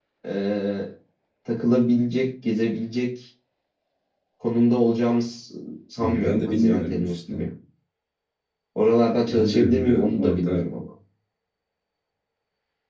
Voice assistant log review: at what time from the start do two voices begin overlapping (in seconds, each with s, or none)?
6.0 s